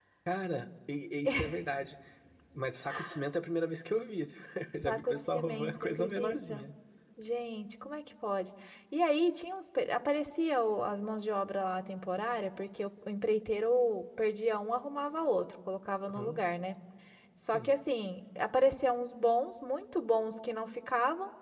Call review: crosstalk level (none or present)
present